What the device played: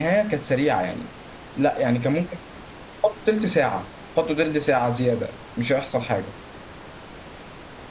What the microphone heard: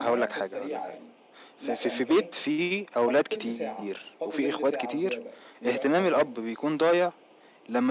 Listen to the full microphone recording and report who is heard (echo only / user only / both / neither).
both